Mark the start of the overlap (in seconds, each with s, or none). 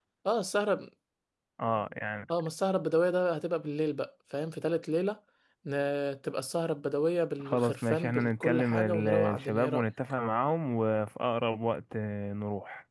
7.4 s